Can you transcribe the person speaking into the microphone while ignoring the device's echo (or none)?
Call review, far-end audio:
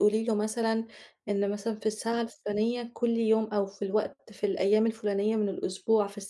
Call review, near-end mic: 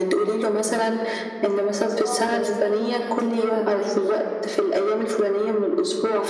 هيبقى صعب بالنسبة لها إنها تتابع معاكِ.